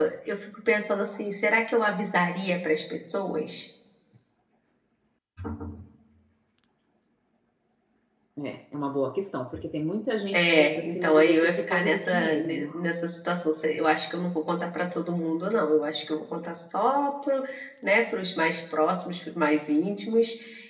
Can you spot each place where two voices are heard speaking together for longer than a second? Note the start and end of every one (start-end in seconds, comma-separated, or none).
10.3-12.6